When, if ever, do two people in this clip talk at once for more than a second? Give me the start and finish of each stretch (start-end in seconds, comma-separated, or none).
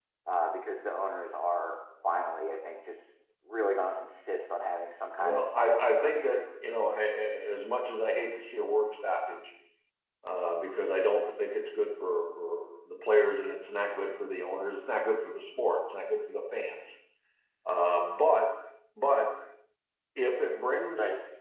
5.2-6.4